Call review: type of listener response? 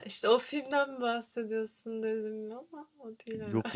taking over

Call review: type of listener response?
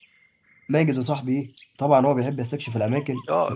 taking over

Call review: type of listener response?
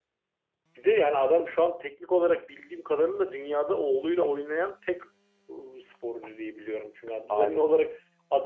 listening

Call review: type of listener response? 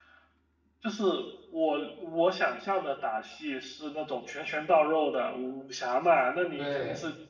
listening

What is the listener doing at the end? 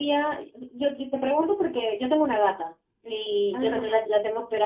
listening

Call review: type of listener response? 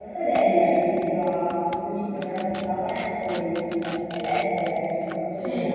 listening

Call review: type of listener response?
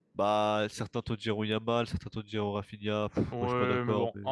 taking over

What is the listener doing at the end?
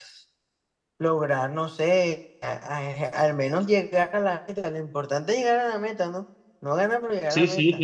taking over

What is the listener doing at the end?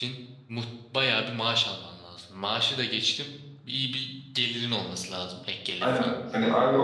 taking over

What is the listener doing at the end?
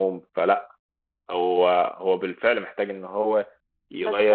listening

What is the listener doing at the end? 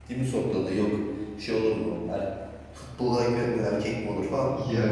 listening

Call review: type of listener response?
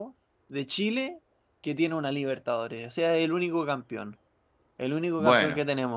listening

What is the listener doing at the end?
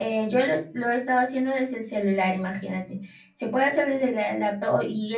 listening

